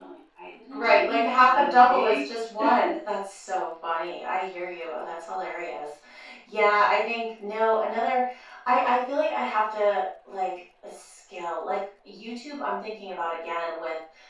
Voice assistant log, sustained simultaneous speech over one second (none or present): present